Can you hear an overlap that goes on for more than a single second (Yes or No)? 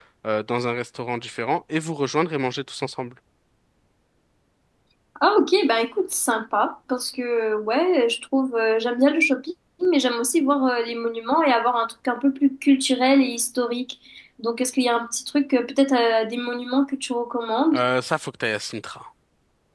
No